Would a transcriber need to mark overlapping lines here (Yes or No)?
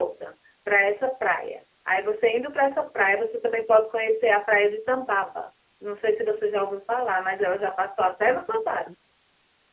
No